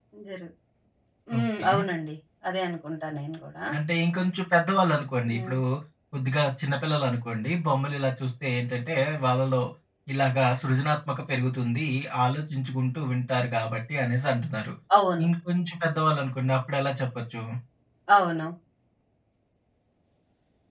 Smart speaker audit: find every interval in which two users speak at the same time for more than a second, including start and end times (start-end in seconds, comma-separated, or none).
none